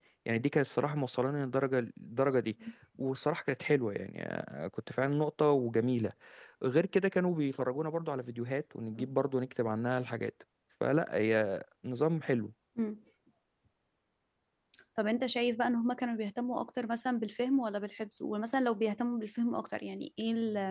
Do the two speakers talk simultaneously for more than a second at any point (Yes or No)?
No